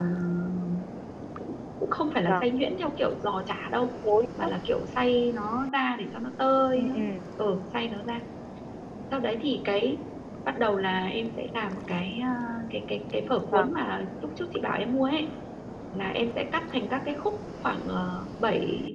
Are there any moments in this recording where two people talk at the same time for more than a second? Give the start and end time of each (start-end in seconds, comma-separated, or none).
none